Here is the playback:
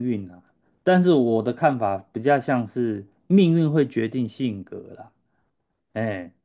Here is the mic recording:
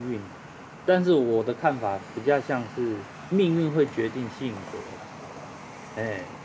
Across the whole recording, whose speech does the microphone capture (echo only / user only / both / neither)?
echo only